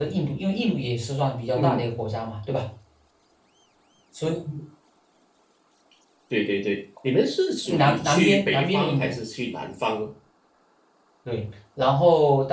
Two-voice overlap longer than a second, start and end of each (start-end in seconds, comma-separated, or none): 7.6-9.2